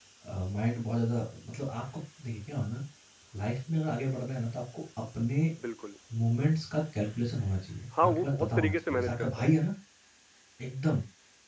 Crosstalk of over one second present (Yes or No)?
Yes